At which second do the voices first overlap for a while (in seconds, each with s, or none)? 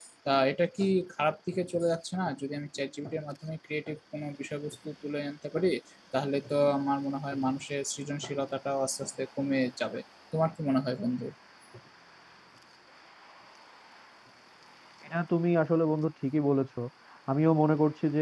none